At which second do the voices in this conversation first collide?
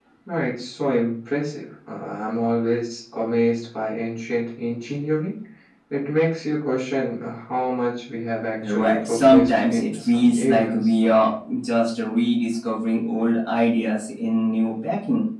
8.6 s

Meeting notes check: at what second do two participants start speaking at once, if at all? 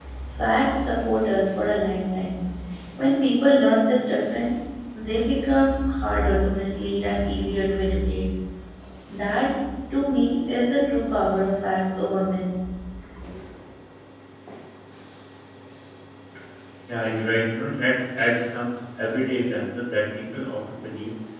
none

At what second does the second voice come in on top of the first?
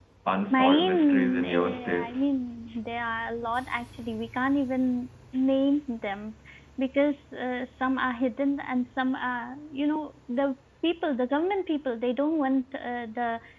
0.5 s

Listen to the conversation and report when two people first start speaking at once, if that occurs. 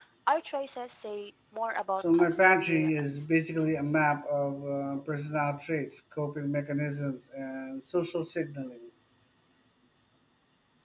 2.0 s

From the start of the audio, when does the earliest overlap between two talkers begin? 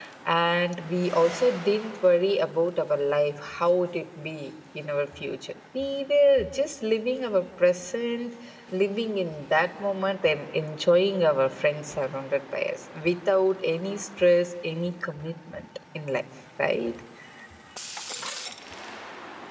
none

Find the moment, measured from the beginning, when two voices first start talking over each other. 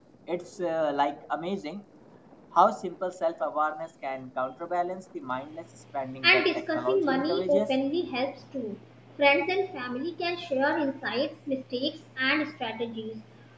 6.2 s

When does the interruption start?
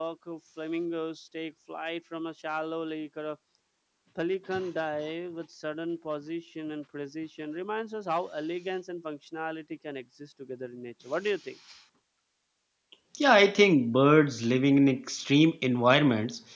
none

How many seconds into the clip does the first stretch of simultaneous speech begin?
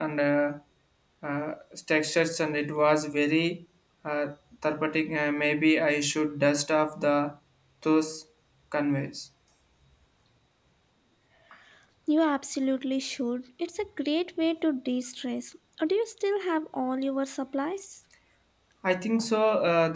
none

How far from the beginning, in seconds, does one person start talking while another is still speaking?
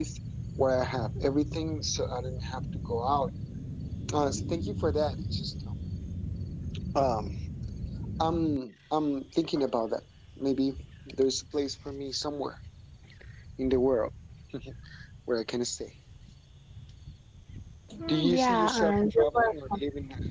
18.1 s

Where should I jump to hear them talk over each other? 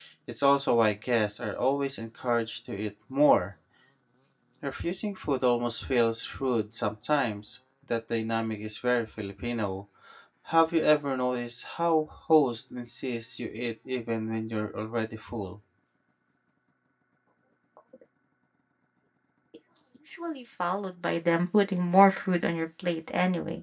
none

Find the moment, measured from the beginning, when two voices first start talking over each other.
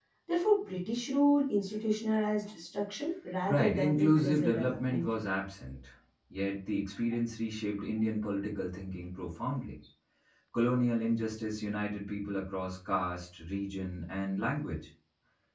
3.5 s

